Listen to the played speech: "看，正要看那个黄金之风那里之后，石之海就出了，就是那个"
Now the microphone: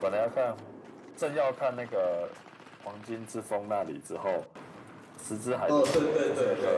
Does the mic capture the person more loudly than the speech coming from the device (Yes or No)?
Yes